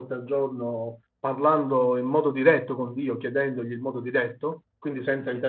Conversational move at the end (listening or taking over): listening